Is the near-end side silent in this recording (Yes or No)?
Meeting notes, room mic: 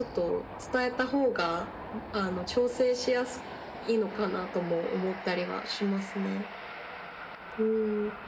Yes